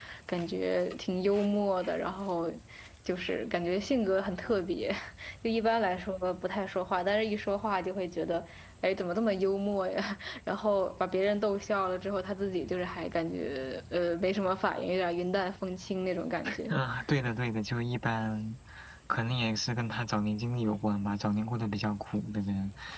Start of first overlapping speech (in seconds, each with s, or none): none